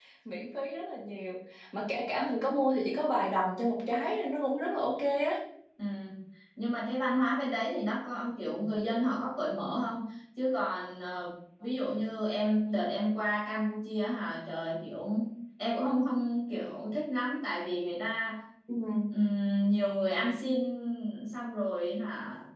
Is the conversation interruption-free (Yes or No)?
Yes